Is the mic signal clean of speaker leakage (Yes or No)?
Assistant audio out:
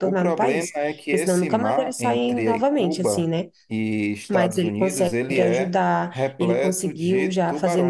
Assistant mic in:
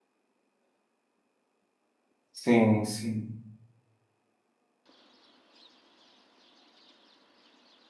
Yes